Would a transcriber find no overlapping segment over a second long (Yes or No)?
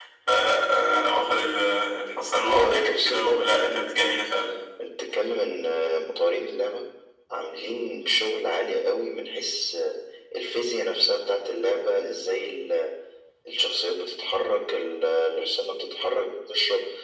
No